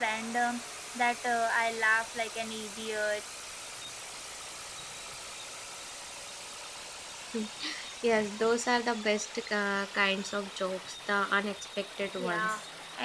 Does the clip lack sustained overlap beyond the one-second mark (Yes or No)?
Yes